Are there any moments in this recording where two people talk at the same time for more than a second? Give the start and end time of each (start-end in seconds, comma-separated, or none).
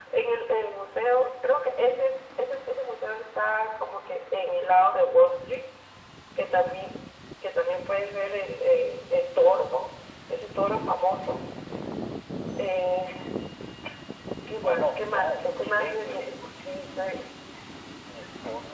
14.6-16.2